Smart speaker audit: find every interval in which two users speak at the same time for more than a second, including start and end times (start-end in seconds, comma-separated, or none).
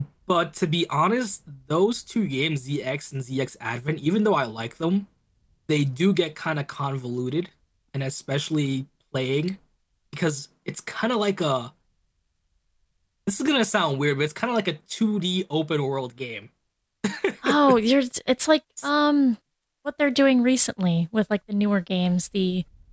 none